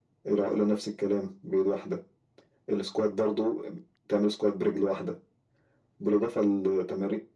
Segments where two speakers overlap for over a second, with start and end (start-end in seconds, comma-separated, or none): none